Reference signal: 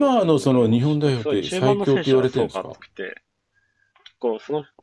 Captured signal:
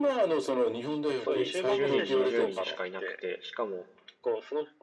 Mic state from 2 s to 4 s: both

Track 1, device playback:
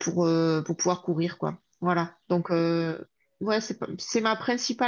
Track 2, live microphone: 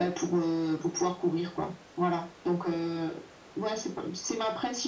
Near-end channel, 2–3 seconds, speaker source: echo only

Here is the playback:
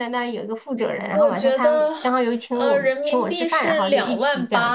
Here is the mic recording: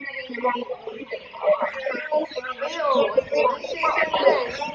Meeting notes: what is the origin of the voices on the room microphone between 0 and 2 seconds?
echo only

